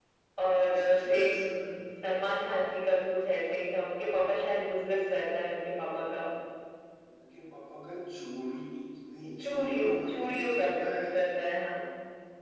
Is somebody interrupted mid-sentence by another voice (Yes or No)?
Yes